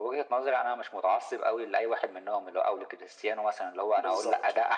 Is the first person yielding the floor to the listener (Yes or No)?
No